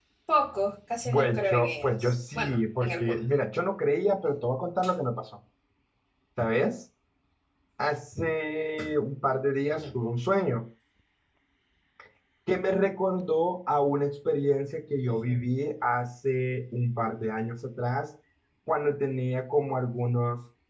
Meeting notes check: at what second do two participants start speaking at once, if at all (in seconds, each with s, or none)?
1.1 s